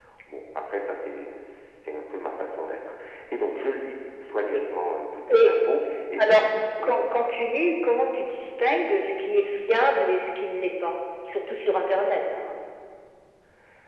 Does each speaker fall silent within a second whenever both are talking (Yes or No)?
Yes